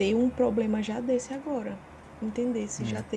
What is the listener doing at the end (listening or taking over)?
listening